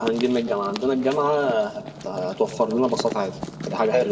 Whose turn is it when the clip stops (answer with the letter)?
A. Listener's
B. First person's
A